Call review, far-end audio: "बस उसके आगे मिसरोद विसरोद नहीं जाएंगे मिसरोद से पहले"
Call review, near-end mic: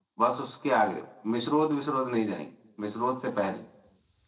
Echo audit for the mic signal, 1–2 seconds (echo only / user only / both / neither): echo only